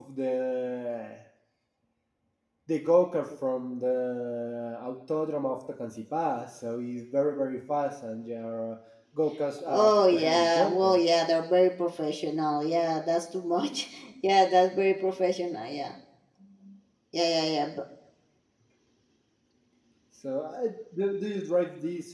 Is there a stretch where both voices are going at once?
Yes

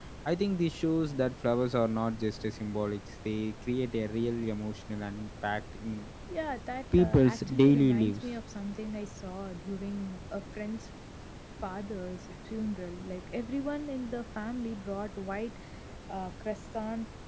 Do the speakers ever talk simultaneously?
Yes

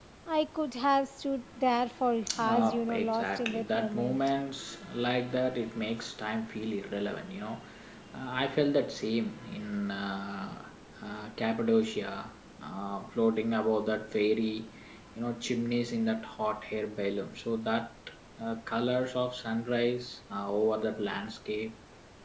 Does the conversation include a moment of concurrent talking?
Yes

